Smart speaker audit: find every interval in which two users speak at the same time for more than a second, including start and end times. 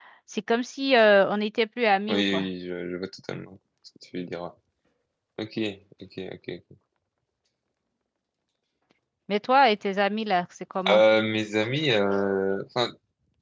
none

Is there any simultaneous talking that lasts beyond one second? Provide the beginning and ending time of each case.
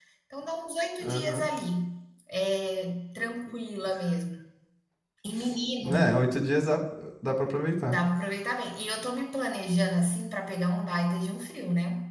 none

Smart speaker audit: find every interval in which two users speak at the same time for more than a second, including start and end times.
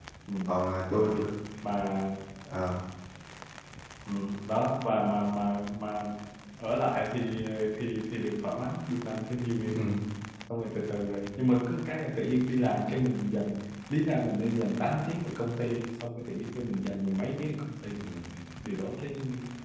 none

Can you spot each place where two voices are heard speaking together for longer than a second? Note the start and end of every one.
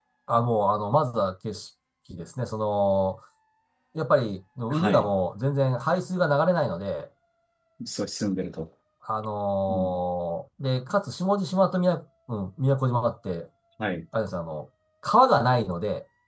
none

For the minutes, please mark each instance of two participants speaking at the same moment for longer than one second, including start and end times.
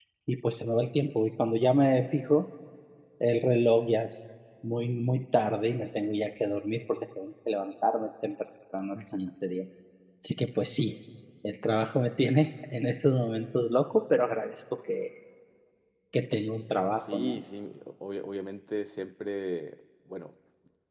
none

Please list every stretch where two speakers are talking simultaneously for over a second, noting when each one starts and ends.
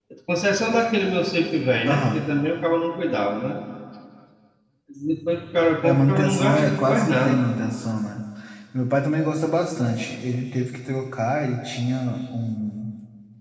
5.8-7.4

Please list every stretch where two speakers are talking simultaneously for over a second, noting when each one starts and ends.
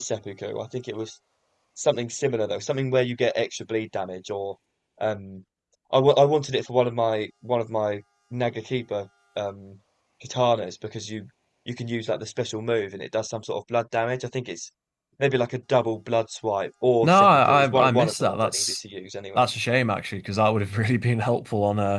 17.0-18.8

